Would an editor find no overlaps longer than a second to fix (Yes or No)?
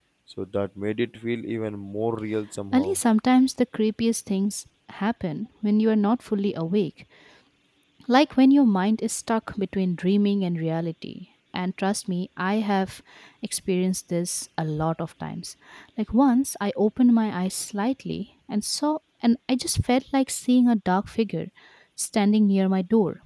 Yes